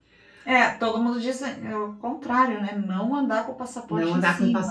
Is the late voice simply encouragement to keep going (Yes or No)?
No